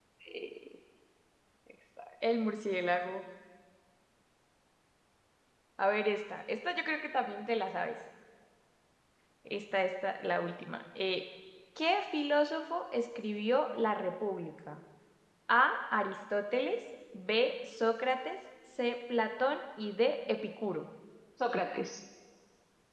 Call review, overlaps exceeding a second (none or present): none